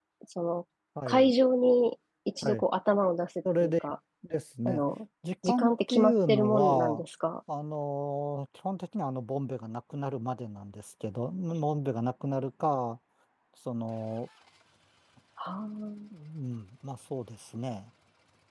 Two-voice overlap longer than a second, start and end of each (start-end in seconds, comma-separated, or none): 5.5-7.0